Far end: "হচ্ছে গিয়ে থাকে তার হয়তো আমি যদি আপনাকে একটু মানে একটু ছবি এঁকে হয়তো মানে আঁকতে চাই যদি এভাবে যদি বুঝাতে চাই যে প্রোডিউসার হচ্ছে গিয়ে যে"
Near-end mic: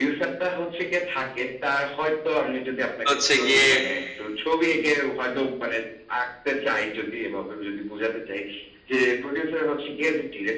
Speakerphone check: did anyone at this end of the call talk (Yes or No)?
Yes